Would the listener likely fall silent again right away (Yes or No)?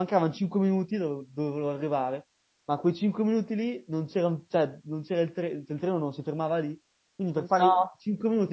Yes